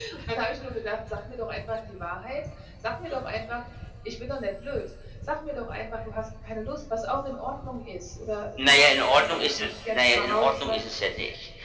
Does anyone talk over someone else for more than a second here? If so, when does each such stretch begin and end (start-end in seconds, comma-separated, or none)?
8.6-10.8